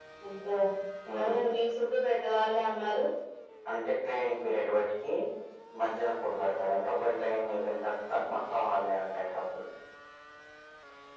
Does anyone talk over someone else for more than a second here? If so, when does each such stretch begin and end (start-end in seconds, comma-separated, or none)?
none